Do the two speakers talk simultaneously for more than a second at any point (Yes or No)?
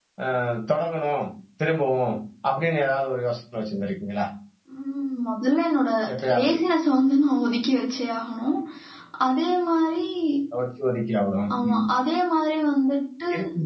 No